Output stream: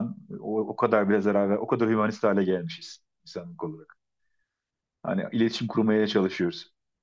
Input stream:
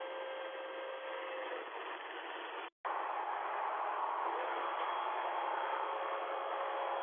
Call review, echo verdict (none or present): none